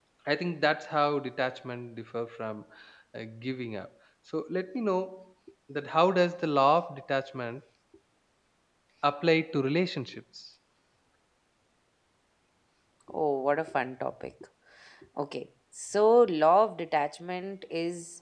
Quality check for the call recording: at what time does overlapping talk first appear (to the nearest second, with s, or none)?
none